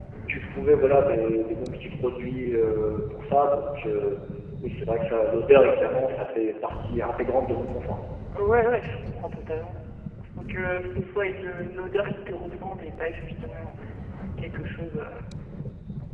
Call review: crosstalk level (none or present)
none